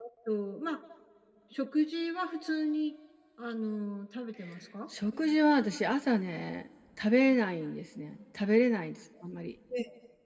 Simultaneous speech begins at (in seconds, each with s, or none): none